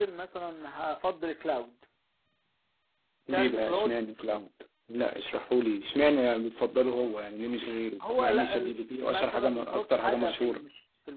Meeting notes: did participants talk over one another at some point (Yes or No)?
Yes